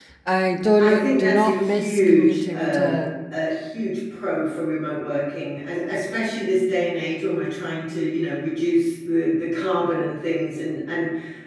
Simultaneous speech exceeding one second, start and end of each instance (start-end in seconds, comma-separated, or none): 0.8-3.0